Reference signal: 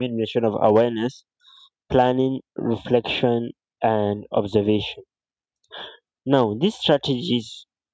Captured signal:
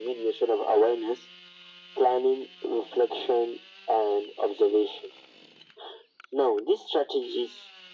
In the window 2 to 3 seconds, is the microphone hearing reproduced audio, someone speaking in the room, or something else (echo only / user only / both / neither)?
echo only